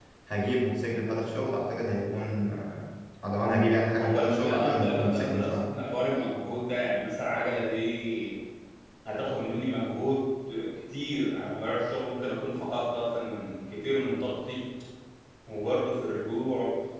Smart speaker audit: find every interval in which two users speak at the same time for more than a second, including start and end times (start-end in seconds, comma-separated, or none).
4.0-5.7